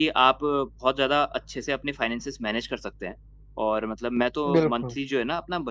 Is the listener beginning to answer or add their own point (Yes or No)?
No